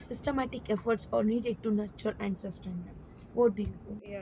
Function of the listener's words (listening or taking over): taking over